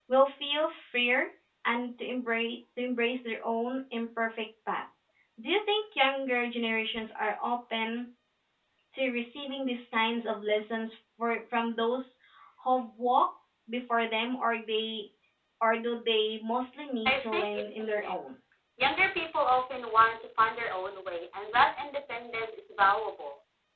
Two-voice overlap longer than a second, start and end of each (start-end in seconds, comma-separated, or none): 17.1-18.3